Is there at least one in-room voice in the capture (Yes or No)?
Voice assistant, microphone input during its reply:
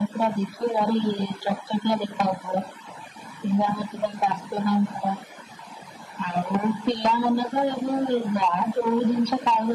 No